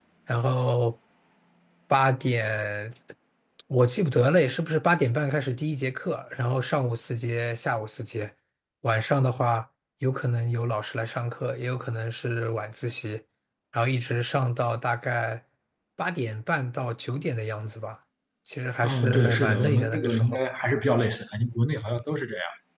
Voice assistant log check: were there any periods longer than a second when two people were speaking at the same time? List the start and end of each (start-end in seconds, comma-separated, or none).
18.8-20.4